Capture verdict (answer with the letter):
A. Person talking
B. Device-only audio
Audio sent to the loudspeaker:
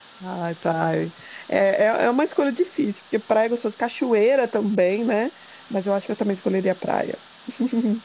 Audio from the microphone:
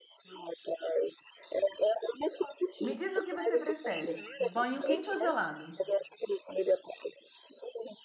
A